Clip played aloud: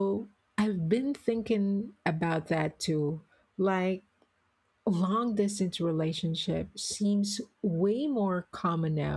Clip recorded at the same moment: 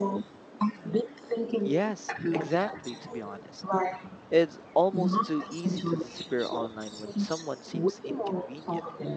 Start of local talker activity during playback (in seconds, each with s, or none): 1.6 s